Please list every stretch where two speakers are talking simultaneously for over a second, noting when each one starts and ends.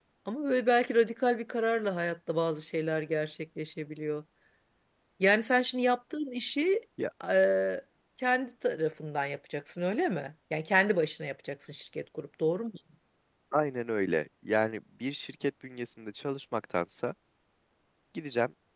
none

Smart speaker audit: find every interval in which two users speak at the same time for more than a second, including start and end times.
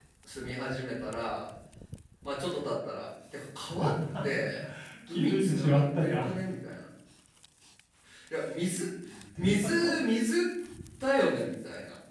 5.1-6.3

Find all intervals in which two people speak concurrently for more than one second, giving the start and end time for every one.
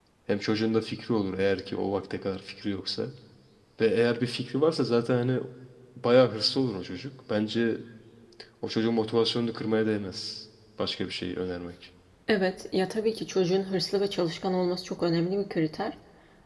none

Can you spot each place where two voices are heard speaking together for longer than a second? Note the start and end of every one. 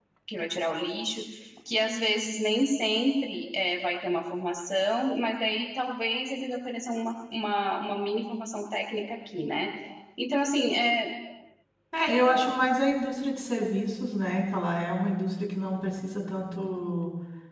none

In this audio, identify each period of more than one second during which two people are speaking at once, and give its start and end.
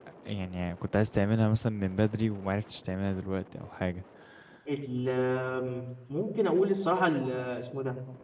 none

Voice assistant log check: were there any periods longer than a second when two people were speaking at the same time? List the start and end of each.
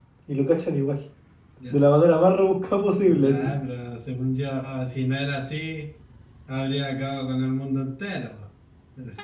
none

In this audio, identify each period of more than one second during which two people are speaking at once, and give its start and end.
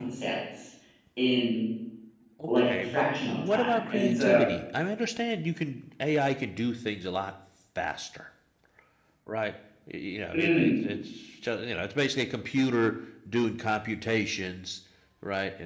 2.5-4.4

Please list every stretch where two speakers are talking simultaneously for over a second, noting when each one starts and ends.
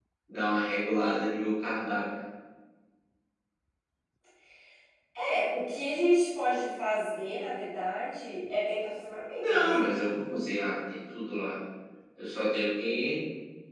none

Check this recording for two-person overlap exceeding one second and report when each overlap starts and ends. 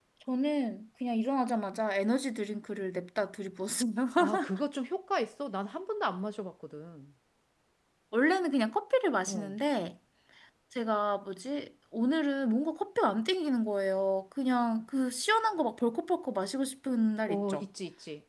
none

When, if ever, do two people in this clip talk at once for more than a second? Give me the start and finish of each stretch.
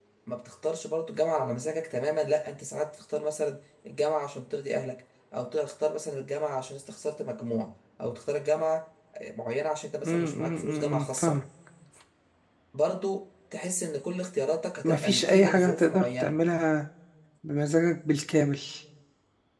10.1-11.4, 14.8-16.4

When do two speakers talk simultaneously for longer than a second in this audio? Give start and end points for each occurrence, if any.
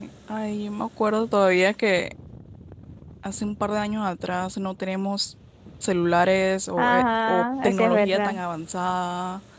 6.8-8.4

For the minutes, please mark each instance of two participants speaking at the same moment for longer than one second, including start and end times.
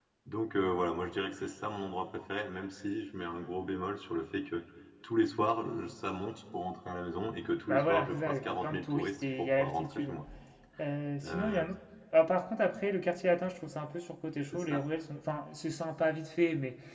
7.7-10.2

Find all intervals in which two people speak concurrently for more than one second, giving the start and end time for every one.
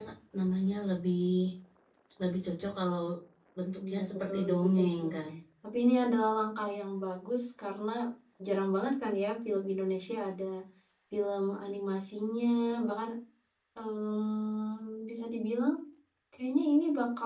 3.8-5.1

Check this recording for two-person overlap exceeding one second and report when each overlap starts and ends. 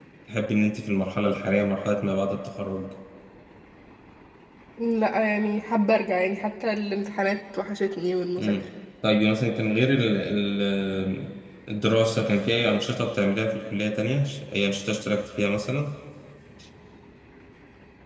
none

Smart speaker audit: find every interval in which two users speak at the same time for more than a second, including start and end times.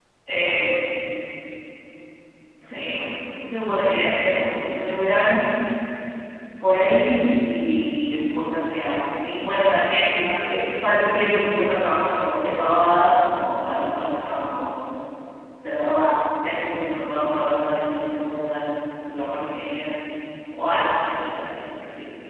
none

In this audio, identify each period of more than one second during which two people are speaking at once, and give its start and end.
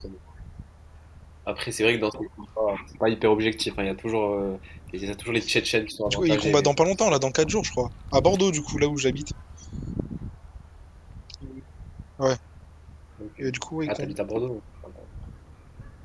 6.1-7.5

